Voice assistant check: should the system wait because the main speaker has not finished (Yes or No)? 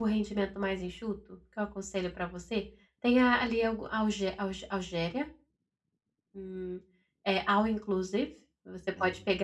Yes